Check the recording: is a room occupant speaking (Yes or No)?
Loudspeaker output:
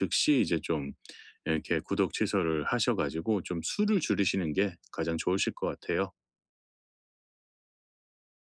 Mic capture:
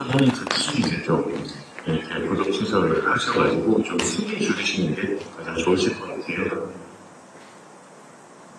No